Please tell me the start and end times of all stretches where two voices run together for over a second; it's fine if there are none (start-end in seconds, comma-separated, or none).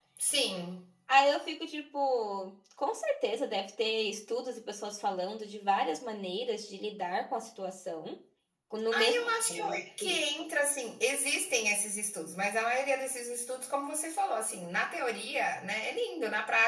8.9-10.2